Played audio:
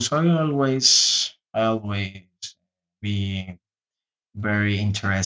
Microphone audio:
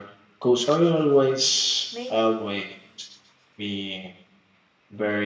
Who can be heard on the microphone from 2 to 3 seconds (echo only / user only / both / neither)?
both